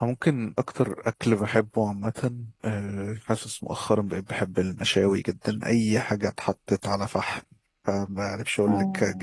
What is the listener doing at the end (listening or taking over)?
listening